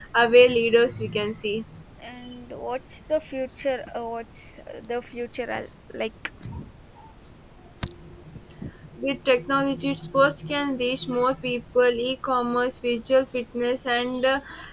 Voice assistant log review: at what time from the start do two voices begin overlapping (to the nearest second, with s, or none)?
none